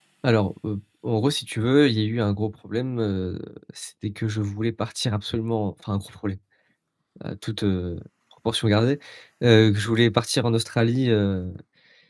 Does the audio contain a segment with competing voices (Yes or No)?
No